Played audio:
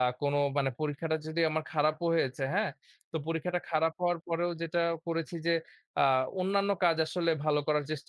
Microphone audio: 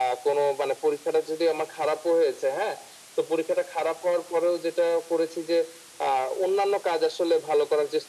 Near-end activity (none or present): none